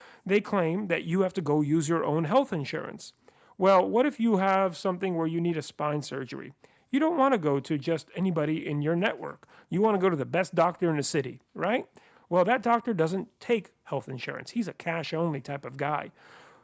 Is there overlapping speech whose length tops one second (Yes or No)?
No